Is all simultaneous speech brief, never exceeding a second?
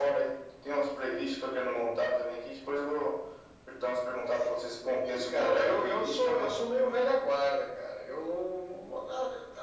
No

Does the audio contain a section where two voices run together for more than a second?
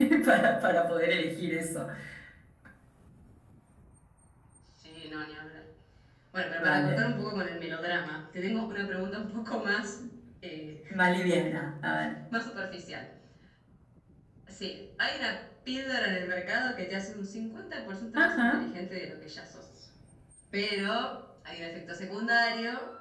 No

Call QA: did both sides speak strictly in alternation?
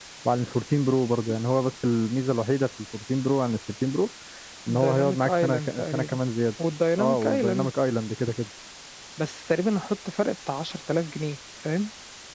No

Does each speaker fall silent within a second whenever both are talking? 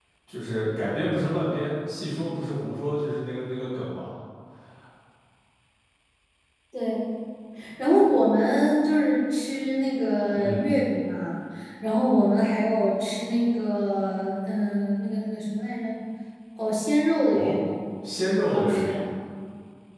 Yes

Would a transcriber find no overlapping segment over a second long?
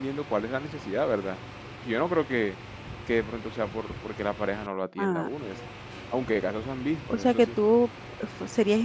Yes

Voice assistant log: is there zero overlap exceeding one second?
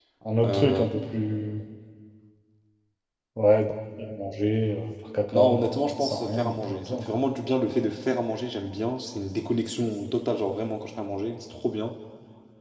No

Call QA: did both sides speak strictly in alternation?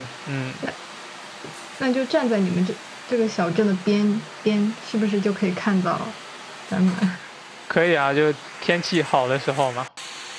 Yes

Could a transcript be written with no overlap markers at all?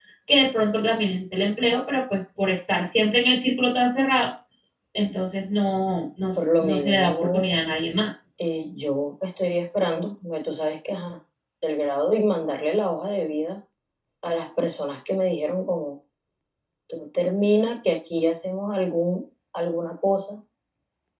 No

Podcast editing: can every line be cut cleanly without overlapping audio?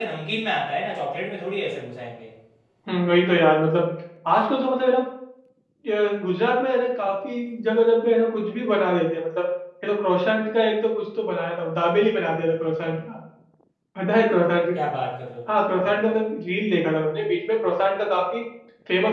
Yes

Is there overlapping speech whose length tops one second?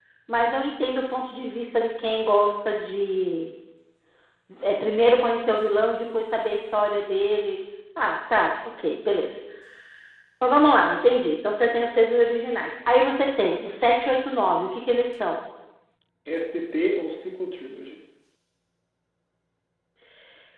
No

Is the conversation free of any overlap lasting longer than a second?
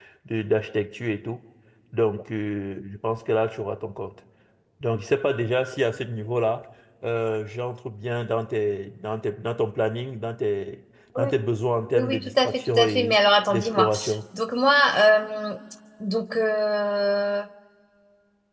No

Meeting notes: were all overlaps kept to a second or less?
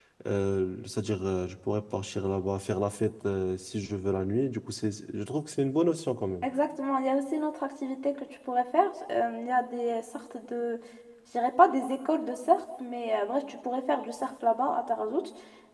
Yes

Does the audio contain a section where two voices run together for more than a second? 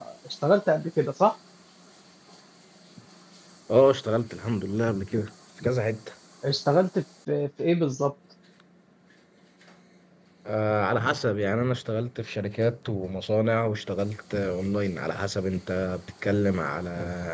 No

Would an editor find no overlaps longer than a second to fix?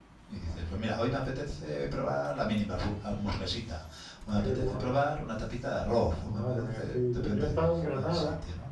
No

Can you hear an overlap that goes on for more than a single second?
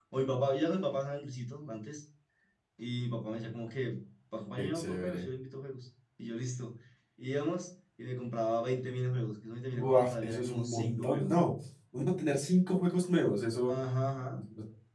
Yes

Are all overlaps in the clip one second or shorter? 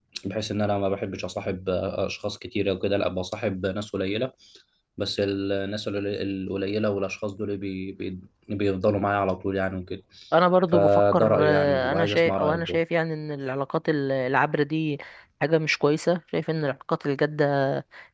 No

